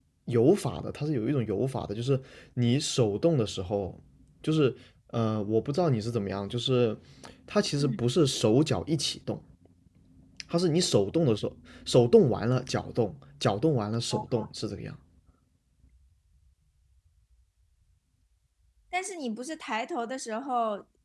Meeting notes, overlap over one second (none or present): none